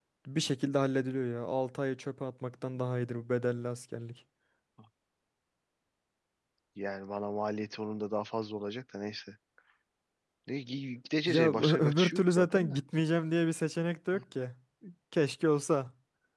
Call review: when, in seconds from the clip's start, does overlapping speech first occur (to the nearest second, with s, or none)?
11 s